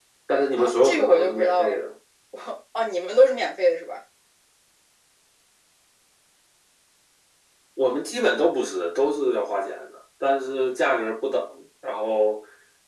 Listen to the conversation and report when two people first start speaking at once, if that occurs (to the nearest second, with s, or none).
1 s